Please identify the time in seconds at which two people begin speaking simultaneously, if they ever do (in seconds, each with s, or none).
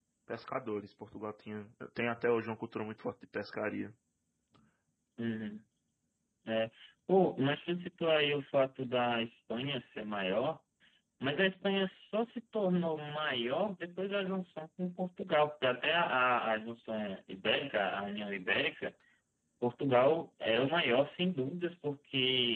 none